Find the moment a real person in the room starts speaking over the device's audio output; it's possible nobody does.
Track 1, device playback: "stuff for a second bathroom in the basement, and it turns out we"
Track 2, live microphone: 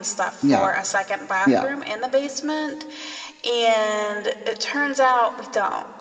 0.4 s

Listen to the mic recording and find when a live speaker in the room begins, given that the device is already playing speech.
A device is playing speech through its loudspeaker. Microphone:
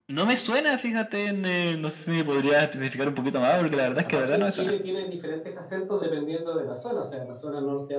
4.0 s

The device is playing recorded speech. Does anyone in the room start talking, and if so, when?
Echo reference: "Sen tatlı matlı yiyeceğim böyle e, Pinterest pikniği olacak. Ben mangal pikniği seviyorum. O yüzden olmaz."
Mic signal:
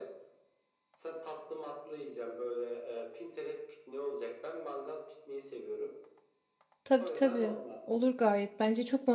6.8 s

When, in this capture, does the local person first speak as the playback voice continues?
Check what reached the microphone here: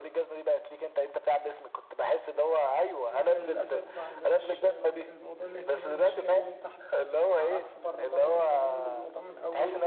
3.1 s

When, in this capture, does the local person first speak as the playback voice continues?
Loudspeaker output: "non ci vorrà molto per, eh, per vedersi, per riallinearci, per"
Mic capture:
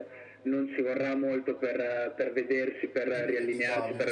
3.1 s

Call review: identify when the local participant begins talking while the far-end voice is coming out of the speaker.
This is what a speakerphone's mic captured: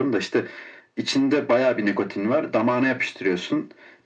none

